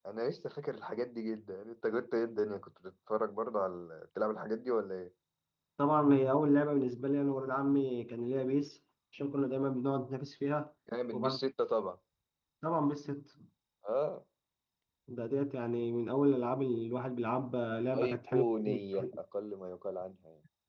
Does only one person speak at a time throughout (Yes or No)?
No